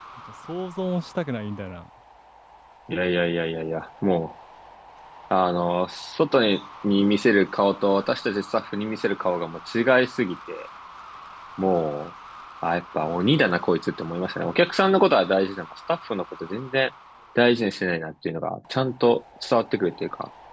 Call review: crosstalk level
none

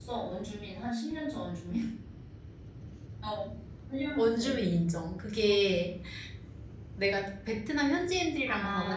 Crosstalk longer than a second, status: none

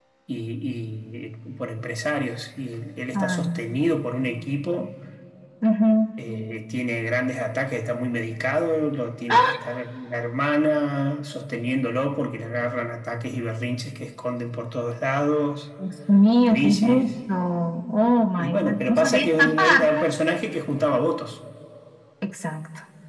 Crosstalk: present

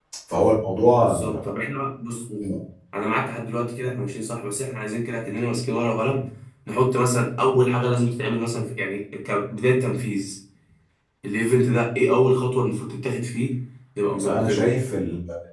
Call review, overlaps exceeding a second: none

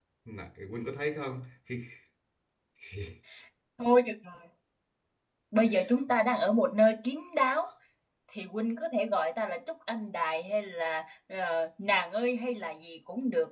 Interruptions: none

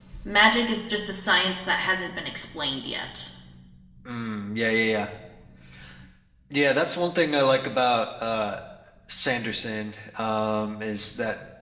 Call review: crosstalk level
none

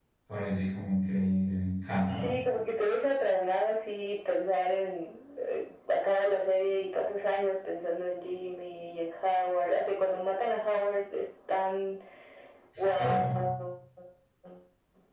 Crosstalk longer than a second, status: none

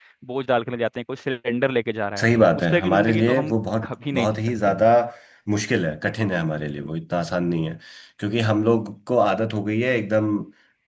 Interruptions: present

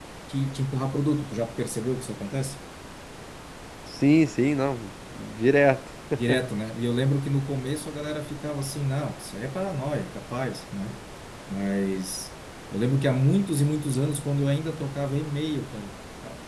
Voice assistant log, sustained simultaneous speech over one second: none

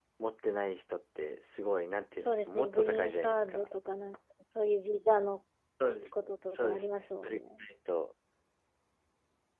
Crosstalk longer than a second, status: present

